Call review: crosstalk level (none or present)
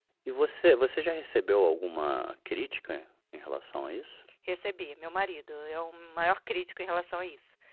none